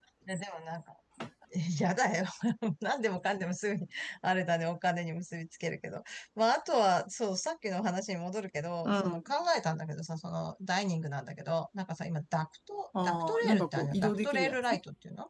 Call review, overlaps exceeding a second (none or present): present